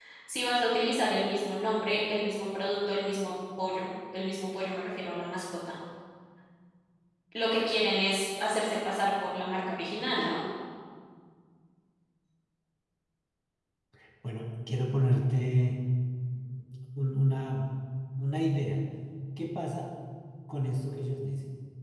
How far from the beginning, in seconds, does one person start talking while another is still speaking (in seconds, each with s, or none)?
none